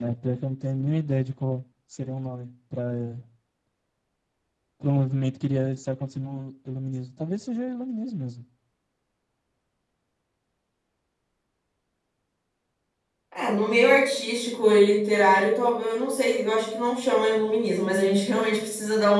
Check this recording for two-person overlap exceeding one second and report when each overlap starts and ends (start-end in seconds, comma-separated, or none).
none